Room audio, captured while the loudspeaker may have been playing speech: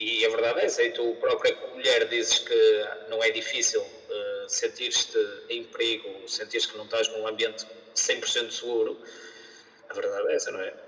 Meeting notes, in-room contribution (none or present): none